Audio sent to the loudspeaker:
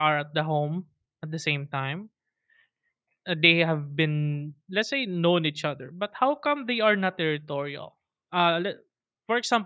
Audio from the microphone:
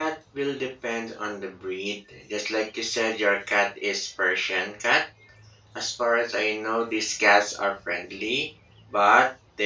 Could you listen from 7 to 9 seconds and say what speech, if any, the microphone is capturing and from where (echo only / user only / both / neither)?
user only